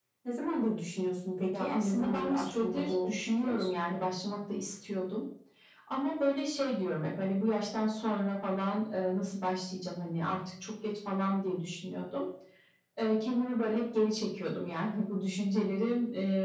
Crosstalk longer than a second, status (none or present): present